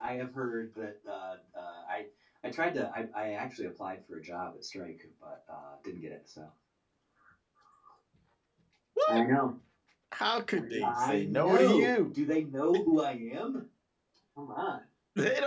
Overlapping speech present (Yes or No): Yes